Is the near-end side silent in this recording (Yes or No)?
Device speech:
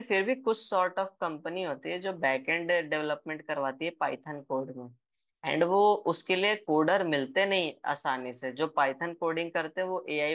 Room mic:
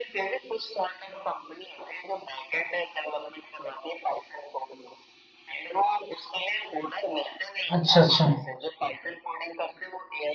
No